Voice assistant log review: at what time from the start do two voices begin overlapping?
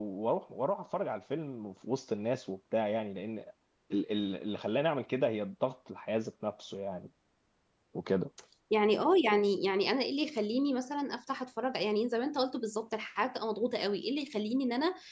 none

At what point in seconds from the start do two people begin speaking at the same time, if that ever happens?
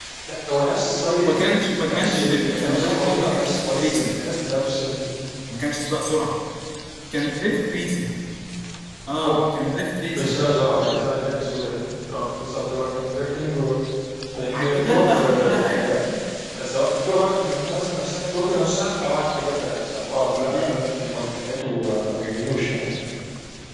1.2 s

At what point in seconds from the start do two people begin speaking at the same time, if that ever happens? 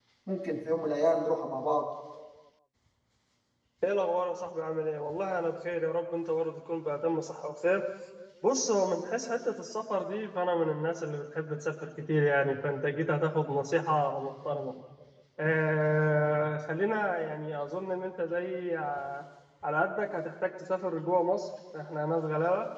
none

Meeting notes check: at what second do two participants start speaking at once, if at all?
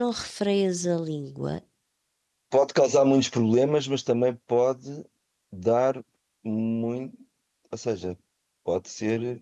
none

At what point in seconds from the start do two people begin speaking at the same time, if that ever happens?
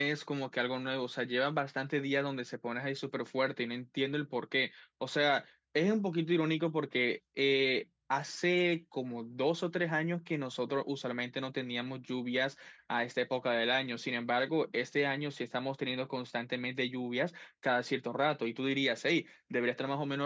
none

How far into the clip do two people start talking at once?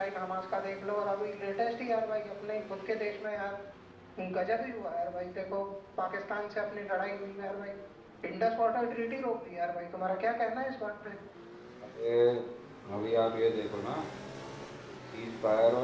none

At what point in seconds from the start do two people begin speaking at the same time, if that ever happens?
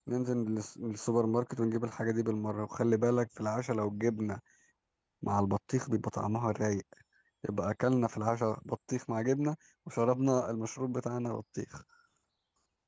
none

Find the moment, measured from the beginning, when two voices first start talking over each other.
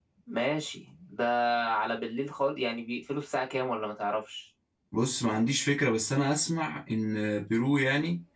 none

